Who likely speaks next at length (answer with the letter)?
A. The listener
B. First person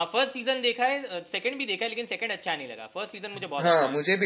A